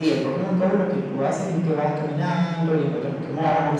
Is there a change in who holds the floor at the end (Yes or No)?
No